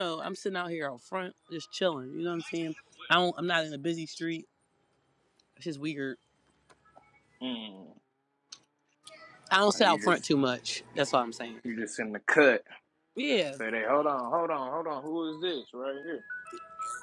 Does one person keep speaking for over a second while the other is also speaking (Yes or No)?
No